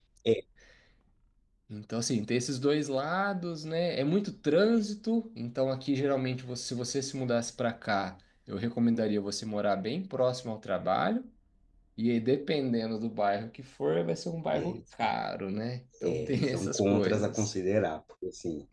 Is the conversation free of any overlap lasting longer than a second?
No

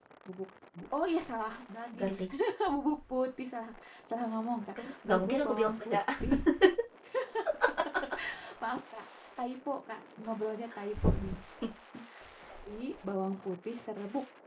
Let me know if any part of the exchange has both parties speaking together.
Yes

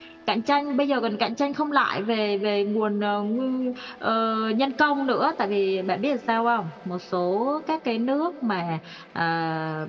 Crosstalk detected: No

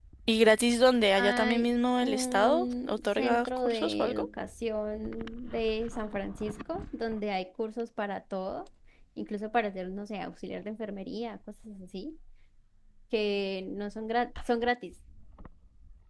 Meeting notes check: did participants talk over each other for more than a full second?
Yes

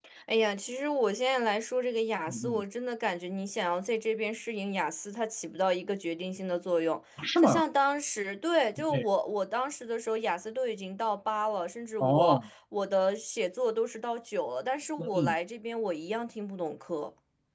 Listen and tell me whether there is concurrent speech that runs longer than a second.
No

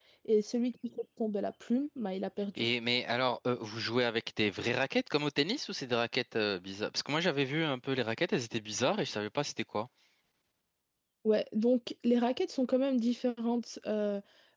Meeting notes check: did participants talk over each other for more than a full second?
No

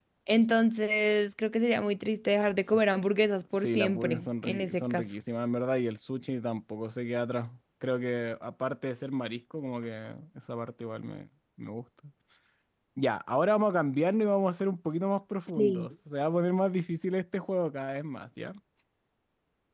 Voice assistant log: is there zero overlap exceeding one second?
No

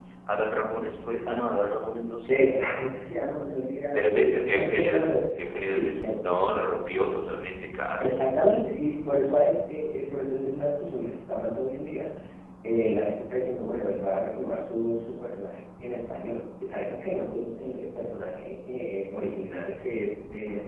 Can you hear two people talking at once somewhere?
Yes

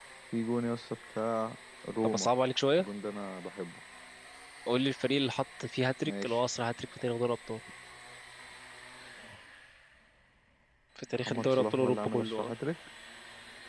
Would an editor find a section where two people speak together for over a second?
Yes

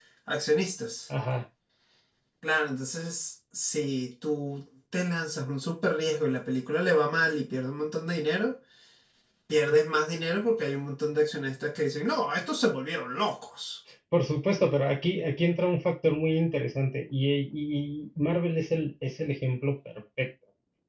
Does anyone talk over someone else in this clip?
No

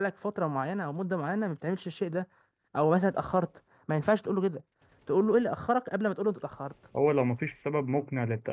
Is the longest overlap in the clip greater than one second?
No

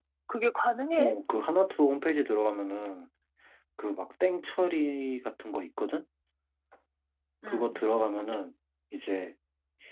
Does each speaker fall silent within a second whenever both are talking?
Yes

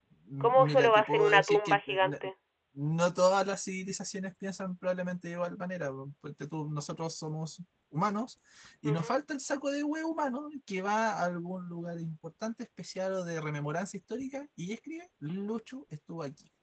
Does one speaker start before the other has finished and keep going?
Yes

